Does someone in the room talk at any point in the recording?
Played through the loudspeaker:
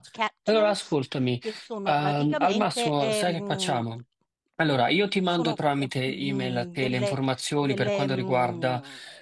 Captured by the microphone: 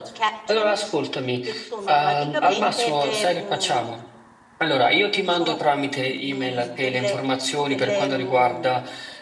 No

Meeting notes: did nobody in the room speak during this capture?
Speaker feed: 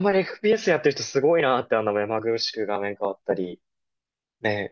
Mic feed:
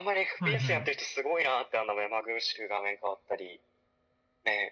No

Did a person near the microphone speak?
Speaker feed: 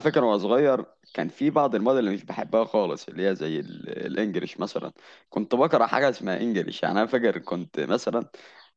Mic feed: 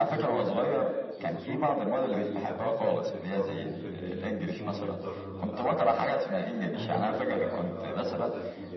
Yes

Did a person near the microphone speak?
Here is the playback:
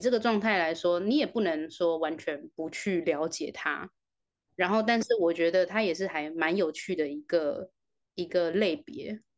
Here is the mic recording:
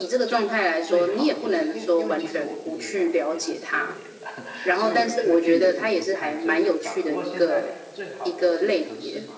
Yes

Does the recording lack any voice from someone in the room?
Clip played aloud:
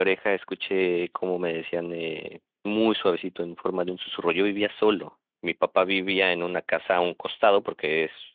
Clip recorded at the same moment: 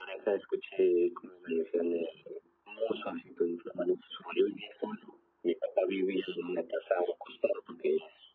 Yes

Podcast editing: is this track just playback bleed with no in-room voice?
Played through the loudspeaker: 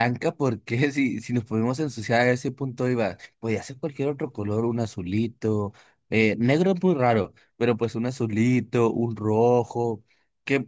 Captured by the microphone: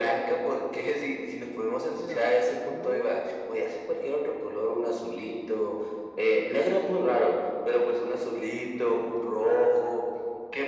No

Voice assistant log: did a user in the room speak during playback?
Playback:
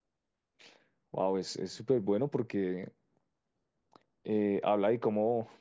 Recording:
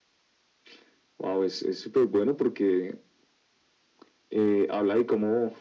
No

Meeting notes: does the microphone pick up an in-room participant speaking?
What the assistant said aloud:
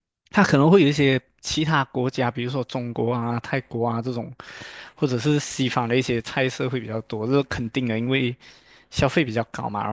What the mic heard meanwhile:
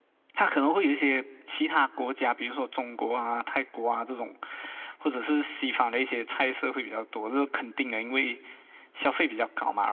No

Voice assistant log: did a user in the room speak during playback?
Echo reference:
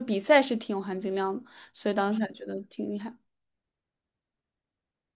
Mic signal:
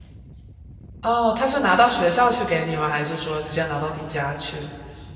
Yes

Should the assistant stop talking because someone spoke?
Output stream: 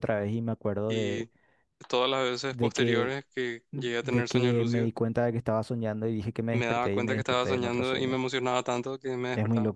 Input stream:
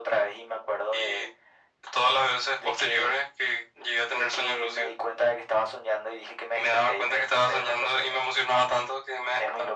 No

